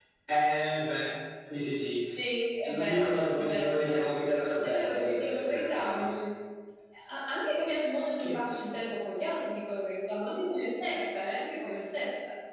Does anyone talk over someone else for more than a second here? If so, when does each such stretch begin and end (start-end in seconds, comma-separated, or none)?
2.7-4.1, 4.6-6.1